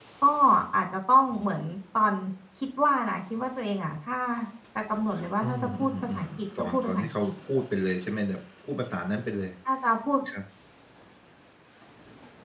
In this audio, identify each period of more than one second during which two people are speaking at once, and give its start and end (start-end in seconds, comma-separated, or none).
5.4-7.3